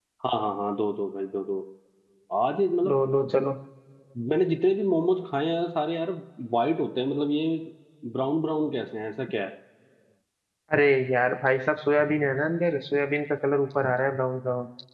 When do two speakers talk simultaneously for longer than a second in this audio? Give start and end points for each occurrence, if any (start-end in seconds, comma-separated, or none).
none